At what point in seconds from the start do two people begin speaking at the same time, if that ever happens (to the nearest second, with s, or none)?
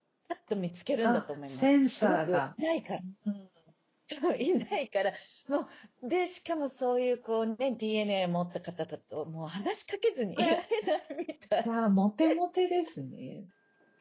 1 s